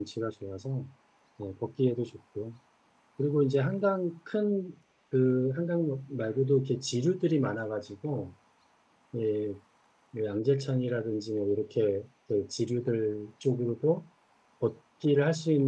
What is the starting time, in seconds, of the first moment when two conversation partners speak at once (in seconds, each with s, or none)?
none